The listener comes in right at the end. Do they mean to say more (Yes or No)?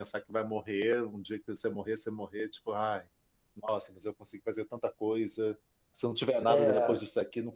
No